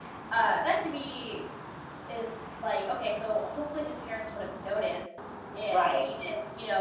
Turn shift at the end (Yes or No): No